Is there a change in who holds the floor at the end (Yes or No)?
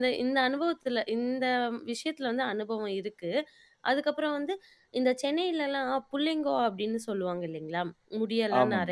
No